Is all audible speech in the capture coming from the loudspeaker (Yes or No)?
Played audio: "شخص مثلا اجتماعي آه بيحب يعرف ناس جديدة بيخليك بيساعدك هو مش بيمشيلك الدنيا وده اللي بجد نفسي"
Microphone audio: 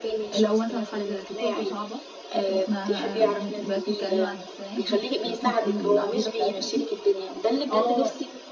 No